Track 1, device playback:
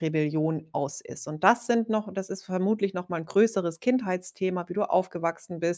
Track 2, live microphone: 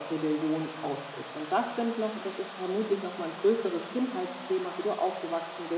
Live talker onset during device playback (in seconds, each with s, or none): none